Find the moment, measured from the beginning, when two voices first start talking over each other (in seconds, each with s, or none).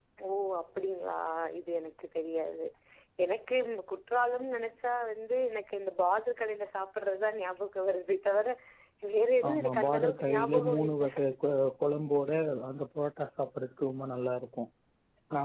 9.5 s